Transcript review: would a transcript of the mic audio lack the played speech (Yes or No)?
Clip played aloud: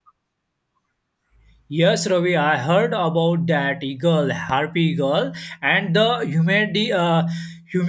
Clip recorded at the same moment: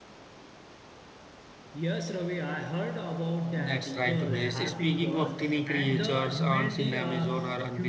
No